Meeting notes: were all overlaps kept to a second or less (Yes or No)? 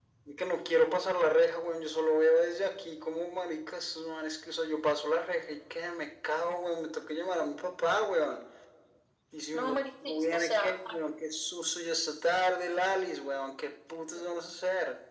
No